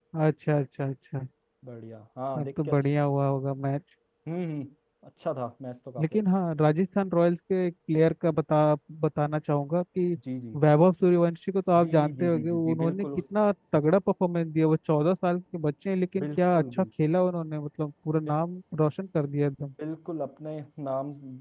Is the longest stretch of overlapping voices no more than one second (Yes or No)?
No